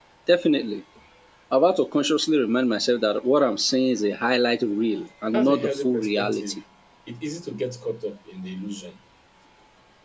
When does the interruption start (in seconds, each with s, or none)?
5.3 s